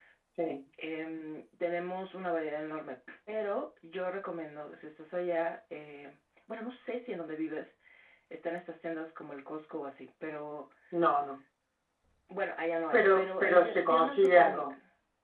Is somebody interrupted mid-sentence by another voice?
Yes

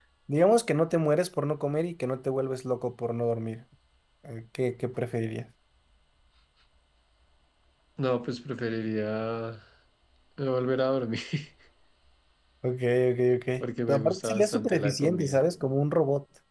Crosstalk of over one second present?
Yes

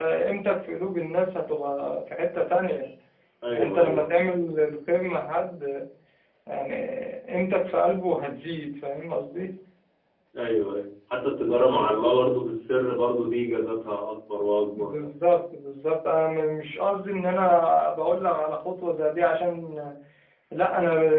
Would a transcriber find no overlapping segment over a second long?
Yes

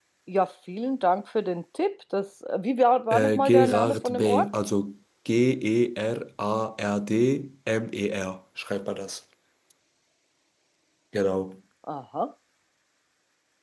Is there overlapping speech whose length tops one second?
Yes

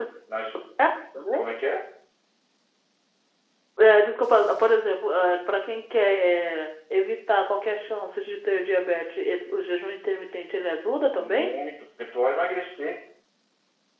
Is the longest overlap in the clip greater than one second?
No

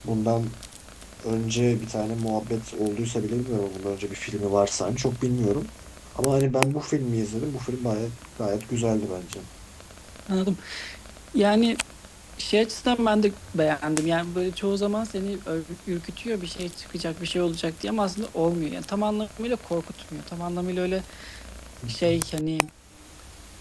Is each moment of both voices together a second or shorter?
Yes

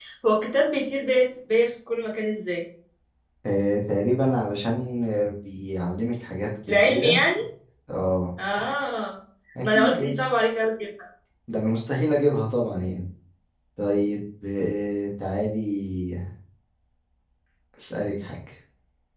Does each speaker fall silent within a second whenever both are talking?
Yes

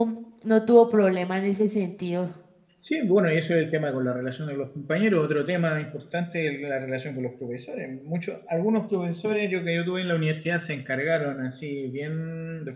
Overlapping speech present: No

